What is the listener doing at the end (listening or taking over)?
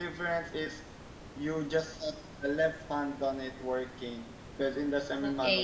taking over